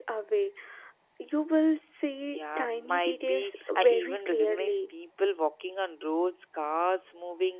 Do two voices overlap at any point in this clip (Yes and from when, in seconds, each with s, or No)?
Yes, from 2.2 s